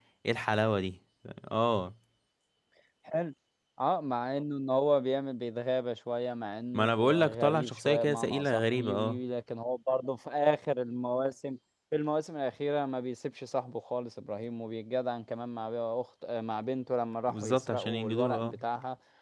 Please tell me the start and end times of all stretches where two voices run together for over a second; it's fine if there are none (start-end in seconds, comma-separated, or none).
6.7-9.2, 17.3-18.6